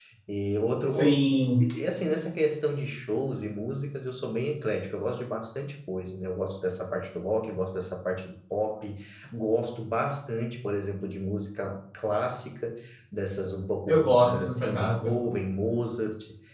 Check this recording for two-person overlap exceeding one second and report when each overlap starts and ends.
13.9-15.1

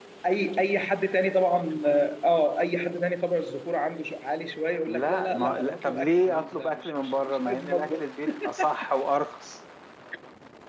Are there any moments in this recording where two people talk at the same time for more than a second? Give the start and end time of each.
4.8-8.0

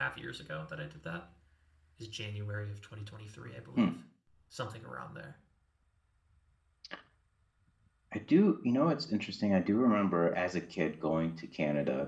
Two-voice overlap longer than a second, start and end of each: none

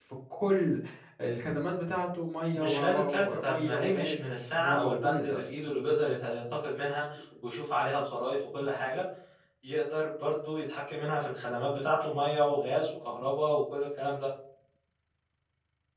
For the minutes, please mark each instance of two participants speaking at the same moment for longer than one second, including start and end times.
2.5-5.4

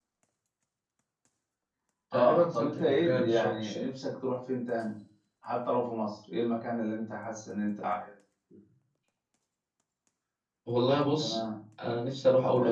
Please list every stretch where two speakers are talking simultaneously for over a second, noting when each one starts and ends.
2.1-3.9

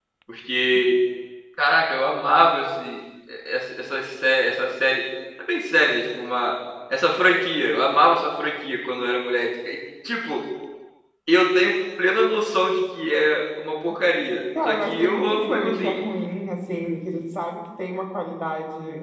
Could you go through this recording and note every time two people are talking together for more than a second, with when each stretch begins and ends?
14.7-16.0

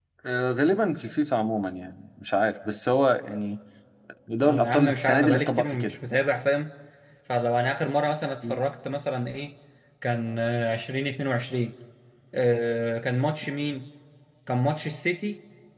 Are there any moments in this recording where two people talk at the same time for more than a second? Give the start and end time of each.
4.4-6.0

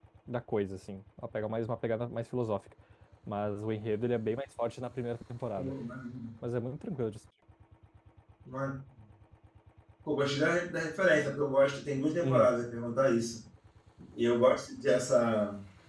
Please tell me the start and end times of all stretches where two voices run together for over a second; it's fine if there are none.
none

